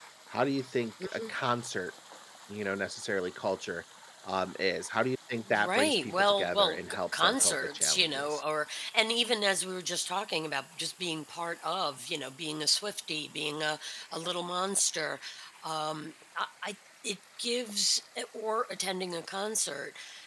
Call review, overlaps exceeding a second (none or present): present